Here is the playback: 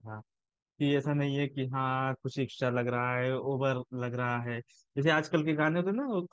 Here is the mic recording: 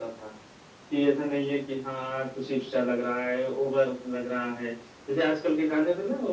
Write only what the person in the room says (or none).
none